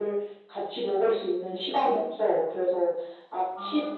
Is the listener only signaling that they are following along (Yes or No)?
Yes